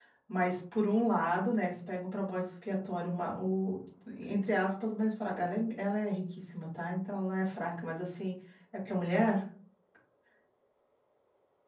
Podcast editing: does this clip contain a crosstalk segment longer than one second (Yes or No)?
No